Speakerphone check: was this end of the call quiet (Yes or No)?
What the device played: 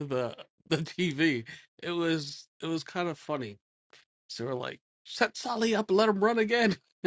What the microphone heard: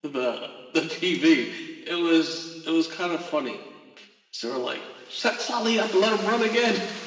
Yes